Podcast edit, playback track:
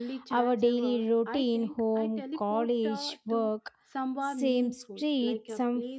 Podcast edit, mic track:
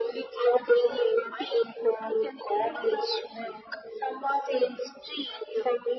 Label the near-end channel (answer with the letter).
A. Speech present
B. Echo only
B